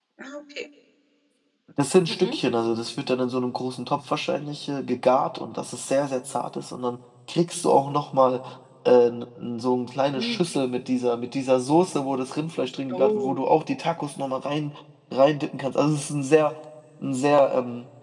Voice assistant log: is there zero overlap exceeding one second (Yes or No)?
Yes